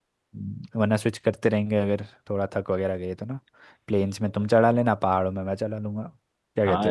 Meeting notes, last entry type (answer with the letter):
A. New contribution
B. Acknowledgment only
A